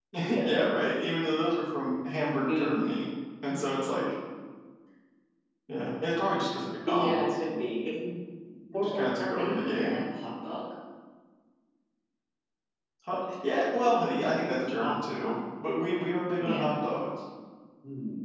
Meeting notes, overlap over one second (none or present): present